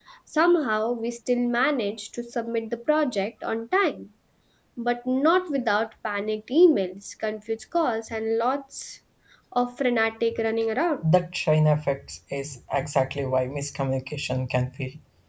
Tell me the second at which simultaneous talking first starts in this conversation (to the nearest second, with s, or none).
none